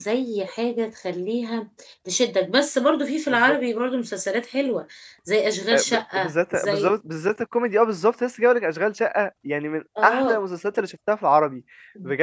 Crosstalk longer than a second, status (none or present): present